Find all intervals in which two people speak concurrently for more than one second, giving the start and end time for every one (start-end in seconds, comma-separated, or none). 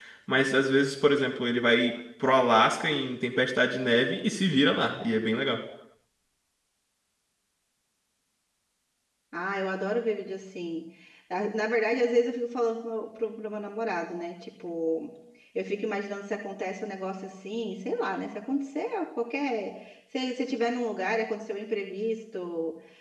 none